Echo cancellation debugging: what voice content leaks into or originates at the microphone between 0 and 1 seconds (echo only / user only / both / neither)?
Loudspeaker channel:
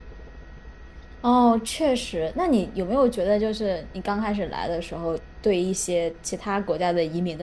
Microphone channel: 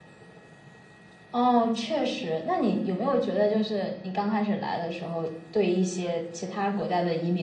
neither